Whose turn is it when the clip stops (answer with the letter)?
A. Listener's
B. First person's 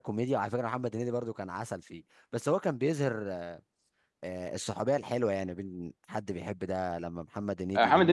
A